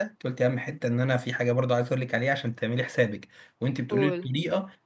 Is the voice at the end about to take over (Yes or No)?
No